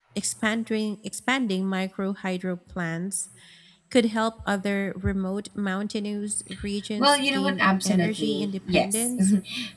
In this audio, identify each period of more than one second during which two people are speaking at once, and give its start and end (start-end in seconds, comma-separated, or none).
7.0-9.1